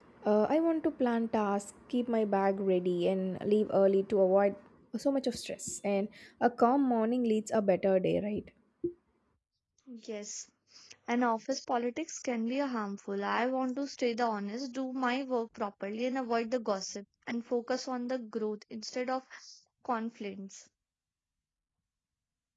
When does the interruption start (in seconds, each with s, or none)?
none